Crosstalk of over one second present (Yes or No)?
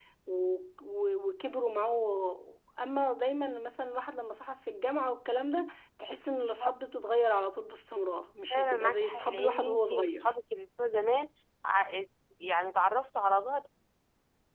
Yes